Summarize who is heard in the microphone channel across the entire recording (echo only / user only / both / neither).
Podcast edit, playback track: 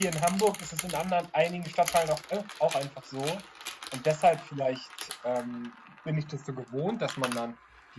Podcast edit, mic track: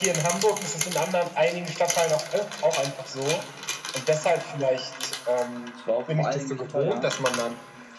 both